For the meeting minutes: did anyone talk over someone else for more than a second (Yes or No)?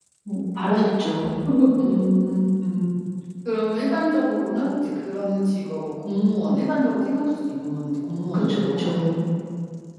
No